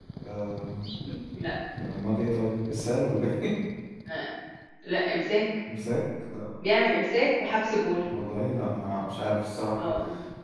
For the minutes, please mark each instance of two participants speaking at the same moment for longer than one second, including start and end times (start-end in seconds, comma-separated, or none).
none